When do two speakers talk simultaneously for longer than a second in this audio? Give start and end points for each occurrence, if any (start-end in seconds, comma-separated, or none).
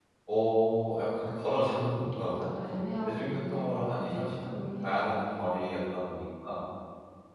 3.0-5.5